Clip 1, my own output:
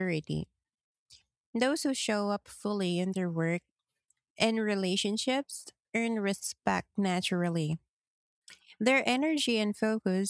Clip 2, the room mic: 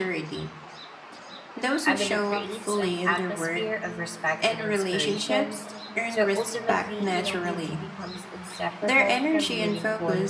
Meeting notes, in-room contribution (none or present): present